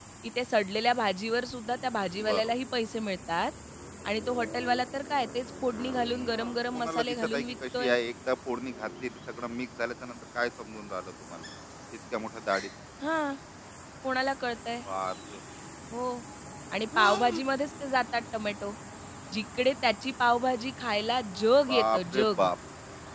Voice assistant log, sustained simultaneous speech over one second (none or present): present